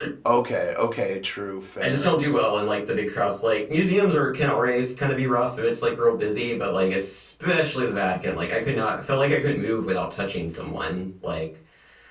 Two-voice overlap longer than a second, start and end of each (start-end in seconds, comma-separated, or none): none